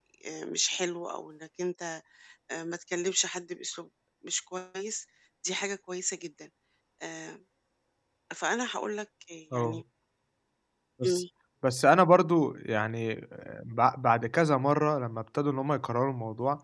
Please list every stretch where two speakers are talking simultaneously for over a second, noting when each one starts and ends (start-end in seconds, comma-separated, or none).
none